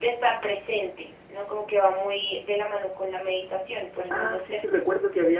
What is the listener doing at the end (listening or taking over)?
taking over